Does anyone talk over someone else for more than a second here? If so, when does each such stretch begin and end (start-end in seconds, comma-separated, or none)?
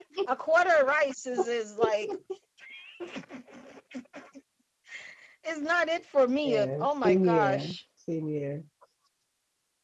6.4-7.8